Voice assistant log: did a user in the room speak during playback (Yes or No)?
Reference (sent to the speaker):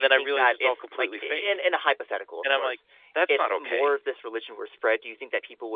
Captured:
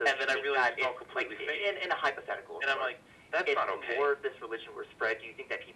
No